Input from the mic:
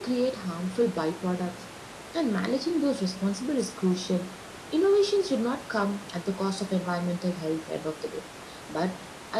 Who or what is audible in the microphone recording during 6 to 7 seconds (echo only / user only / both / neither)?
echo only